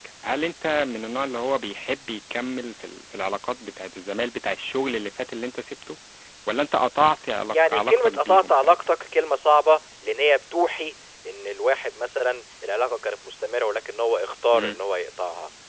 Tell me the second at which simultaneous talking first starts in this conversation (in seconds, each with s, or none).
7.5 s